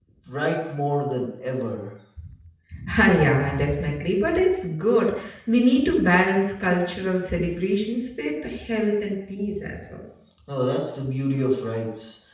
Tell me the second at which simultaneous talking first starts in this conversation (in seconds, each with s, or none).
none